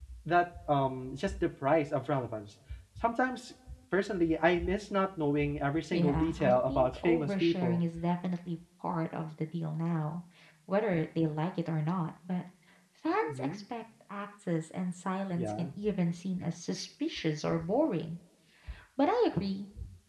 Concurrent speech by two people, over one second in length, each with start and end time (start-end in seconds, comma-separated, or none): 5.9-7.8